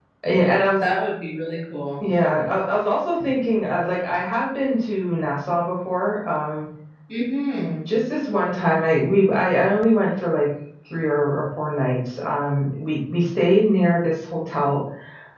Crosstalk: none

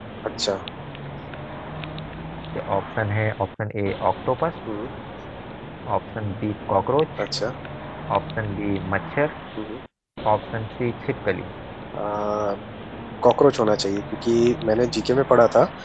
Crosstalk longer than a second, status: none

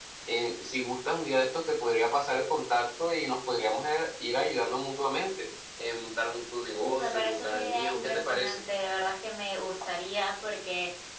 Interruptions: present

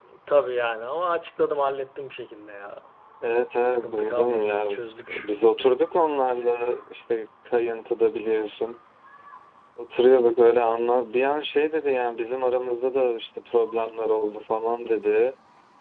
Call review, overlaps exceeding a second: present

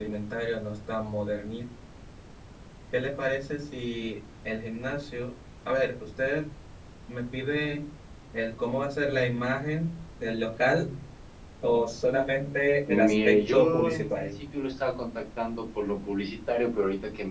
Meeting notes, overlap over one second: present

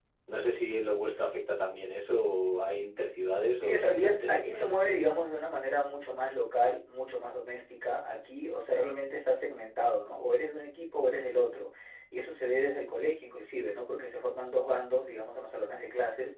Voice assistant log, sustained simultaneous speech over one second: present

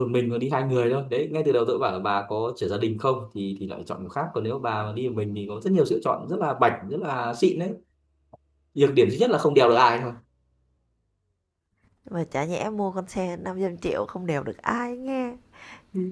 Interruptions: none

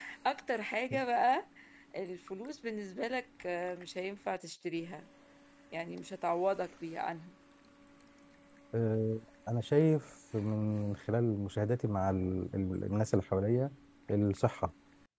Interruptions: none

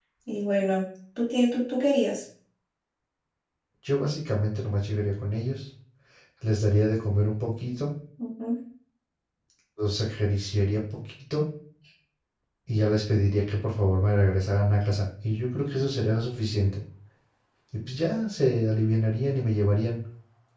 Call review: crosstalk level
none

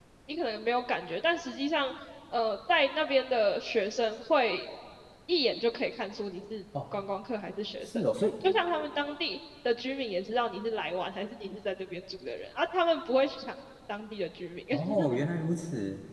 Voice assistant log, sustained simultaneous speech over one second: none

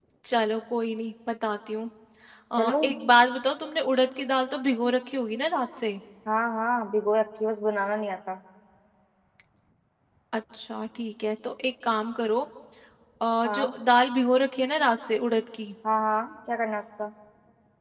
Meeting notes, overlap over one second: none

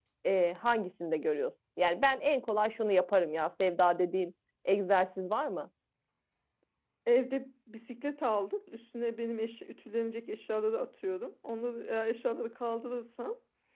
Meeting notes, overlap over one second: none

